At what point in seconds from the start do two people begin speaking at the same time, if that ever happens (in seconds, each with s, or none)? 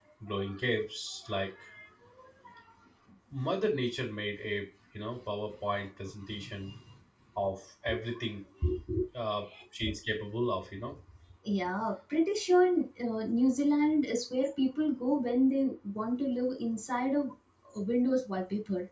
none